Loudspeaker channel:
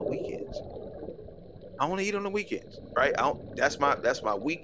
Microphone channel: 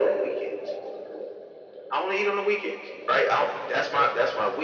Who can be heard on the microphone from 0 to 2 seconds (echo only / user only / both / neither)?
echo only